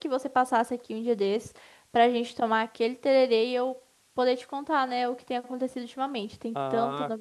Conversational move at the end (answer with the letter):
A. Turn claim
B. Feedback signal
A